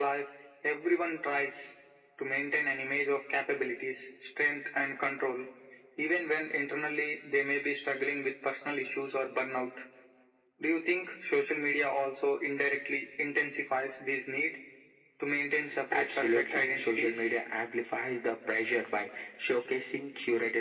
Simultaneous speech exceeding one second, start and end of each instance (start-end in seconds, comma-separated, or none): 15.9-17.3